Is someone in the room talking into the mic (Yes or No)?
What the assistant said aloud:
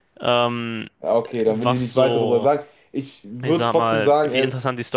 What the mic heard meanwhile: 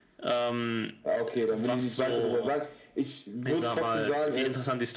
No